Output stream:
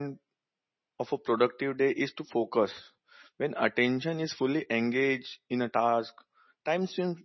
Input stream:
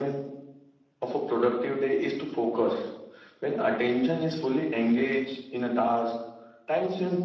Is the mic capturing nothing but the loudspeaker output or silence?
Yes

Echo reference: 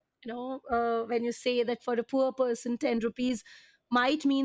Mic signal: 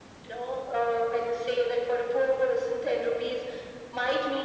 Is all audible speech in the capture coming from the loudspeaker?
Yes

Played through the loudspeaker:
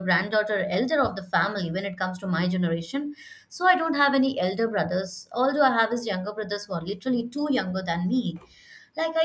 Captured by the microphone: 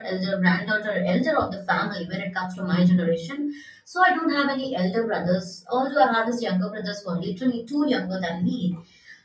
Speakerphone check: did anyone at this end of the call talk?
No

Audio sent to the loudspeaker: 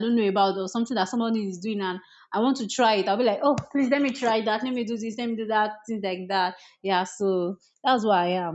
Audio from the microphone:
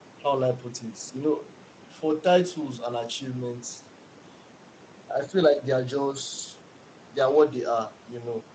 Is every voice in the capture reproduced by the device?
No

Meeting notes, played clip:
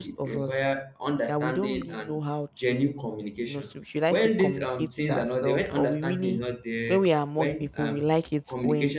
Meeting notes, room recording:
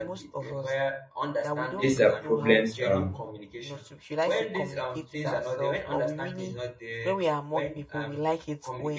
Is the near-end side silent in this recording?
No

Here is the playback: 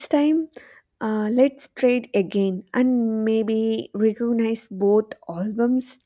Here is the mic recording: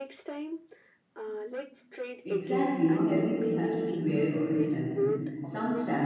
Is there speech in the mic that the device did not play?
Yes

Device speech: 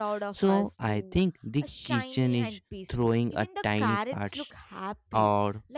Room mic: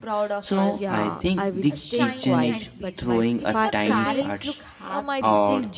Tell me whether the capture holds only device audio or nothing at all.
No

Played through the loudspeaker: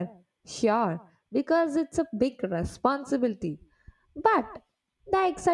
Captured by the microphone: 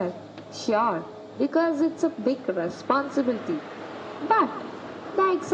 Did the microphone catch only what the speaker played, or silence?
Yes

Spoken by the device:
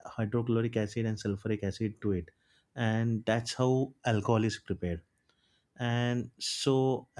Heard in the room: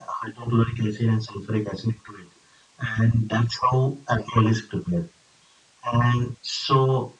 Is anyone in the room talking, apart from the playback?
No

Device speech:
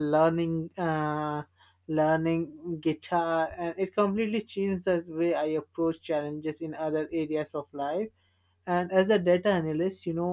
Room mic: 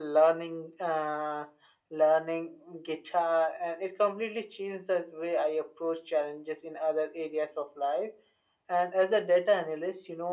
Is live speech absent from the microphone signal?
Yes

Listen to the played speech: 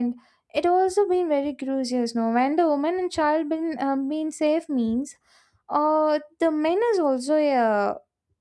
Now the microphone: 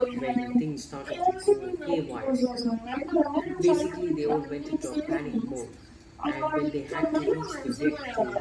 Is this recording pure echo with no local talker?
No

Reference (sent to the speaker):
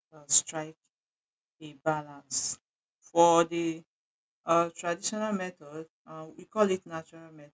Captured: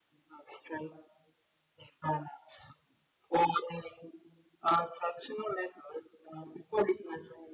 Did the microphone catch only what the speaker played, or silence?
Yes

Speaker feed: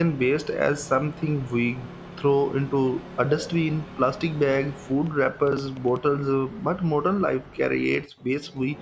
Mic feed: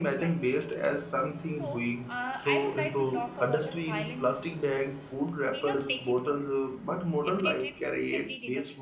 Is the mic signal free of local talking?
No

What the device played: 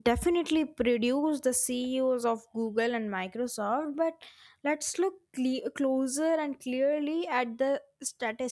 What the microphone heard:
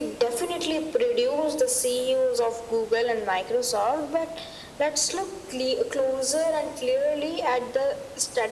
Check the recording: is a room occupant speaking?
No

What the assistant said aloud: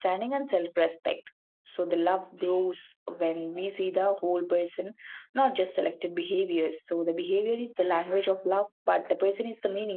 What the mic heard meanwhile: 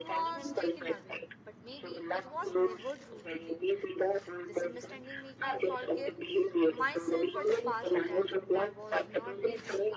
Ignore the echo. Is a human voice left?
Yes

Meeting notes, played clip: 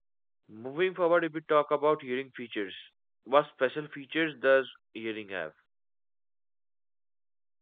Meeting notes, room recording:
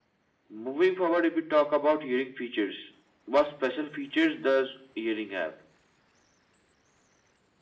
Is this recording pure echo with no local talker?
Yes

